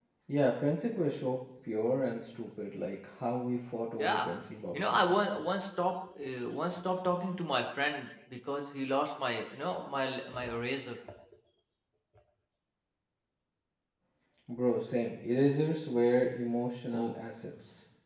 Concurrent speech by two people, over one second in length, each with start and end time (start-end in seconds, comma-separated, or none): none